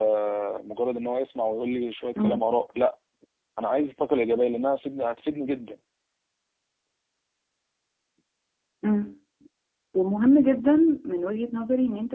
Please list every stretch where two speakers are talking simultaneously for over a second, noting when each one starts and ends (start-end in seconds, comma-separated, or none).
none